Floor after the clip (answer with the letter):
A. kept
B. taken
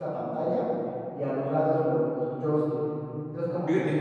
A